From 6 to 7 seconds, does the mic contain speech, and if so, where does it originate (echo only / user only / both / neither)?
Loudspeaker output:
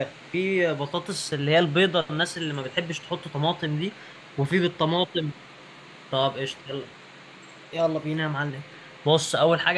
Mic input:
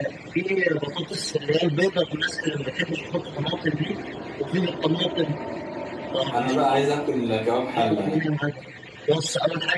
both